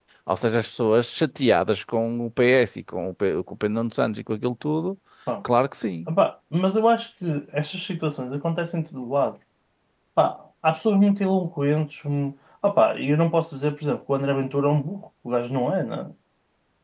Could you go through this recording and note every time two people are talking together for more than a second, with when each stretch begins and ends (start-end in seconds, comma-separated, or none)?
none